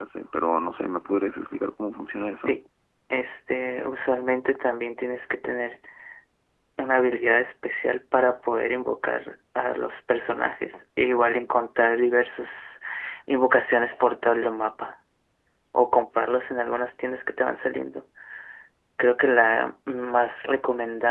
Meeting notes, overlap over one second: none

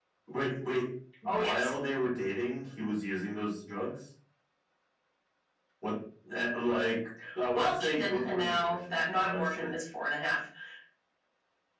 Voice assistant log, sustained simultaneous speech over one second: present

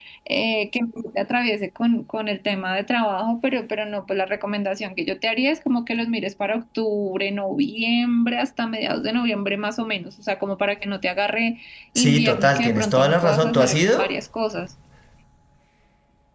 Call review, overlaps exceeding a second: present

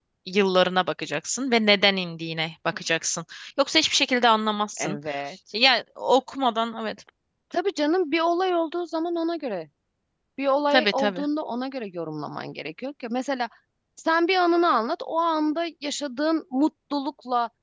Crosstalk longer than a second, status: none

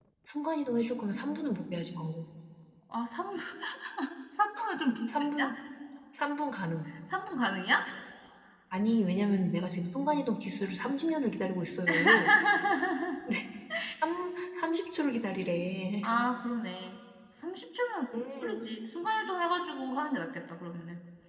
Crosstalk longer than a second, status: none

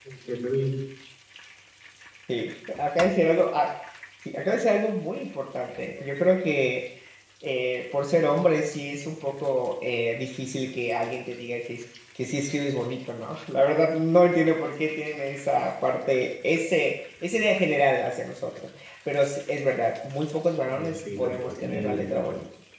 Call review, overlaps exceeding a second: present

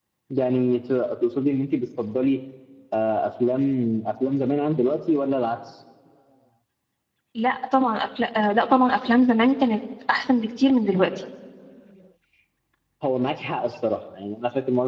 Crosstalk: none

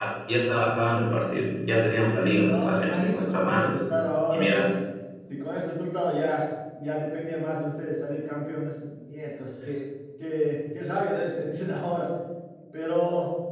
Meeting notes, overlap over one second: present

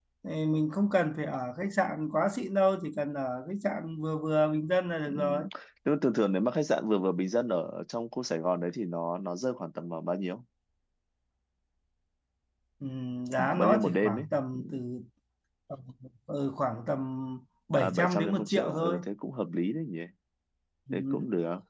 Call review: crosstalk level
present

